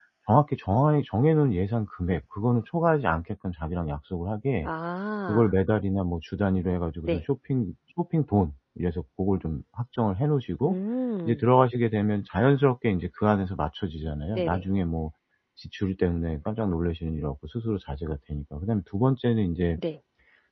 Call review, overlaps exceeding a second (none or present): none